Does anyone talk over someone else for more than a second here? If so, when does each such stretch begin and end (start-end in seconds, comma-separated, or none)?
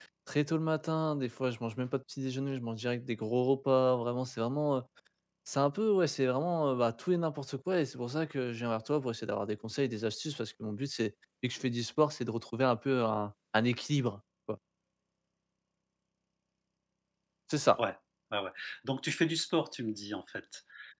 none